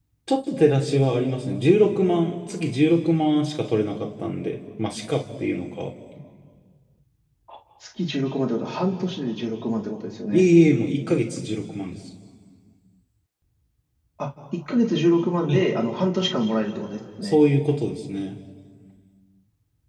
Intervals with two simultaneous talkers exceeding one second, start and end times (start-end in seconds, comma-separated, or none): none